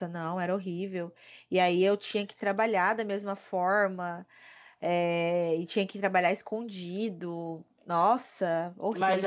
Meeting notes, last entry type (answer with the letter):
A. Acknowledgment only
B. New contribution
B